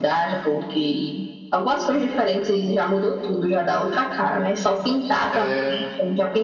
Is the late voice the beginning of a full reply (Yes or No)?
No